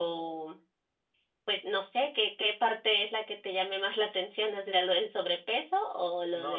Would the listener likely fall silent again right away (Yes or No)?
No